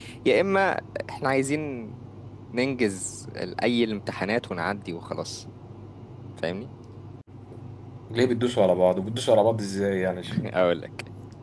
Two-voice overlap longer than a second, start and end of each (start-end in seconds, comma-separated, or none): none